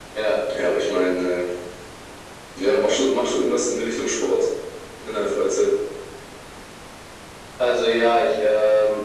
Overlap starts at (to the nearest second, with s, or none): none